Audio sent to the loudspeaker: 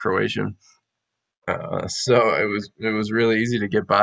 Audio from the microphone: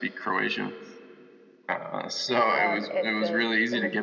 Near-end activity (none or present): present